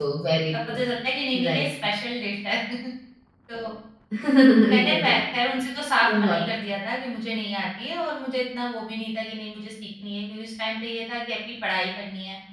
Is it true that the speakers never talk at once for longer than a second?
Yes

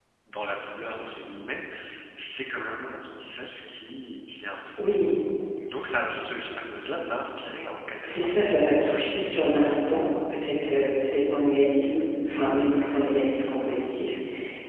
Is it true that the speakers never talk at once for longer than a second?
Yes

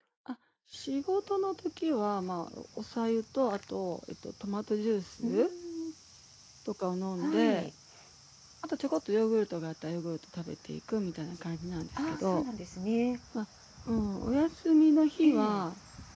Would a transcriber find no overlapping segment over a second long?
Yes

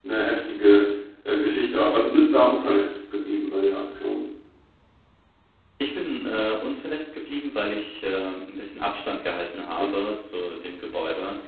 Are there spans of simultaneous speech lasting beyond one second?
No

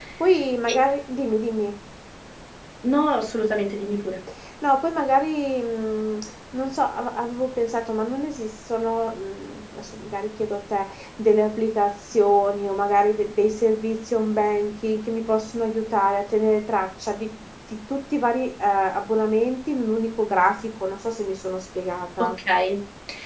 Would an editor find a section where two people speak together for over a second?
No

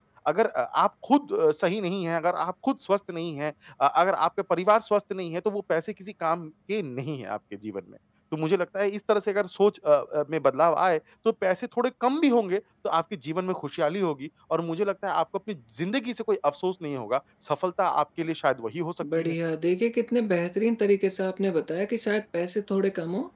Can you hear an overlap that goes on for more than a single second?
No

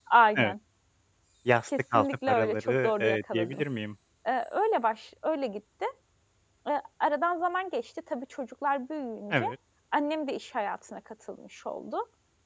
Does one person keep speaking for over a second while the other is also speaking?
Yes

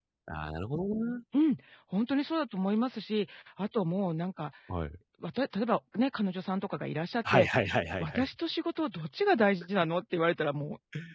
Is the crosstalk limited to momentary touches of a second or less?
Yes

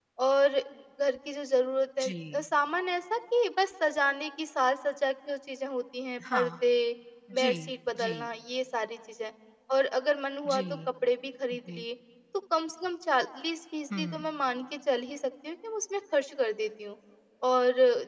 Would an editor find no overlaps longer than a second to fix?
Yes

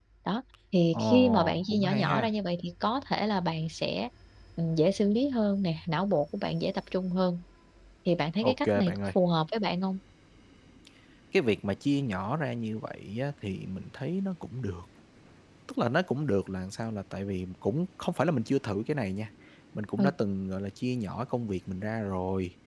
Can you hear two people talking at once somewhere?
Yes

